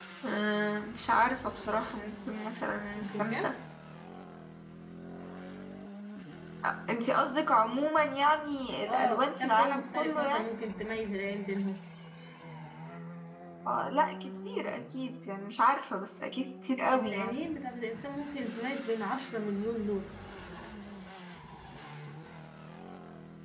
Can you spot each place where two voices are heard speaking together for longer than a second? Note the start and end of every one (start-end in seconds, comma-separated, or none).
8.8-10.4